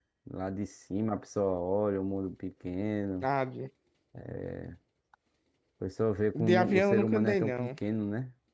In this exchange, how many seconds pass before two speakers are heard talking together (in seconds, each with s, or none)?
6.3 s